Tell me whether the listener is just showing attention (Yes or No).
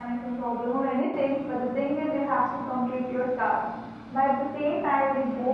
Yes